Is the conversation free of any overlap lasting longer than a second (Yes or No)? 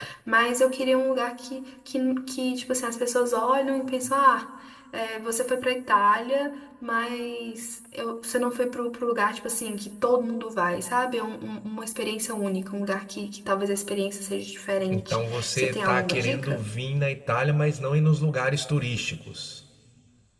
No